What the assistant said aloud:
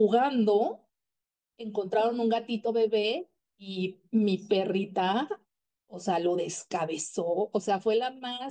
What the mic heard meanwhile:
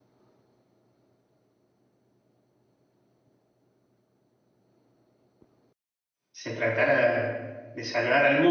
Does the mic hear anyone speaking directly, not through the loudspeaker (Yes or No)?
Yes